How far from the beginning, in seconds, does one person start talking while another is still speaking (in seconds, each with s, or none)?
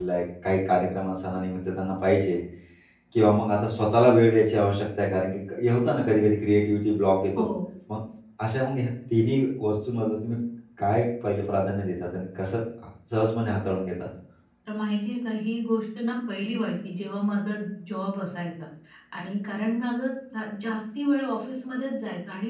none